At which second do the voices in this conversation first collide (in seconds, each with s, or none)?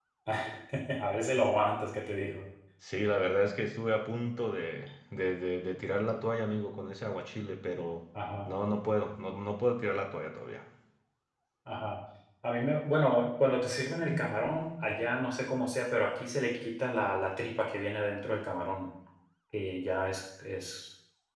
none